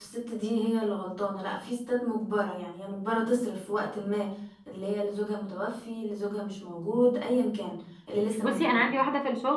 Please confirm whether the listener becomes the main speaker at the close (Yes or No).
Yes